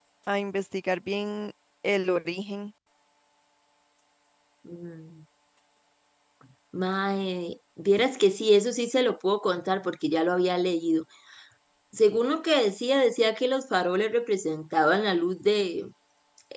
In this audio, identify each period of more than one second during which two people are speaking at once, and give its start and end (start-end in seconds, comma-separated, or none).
none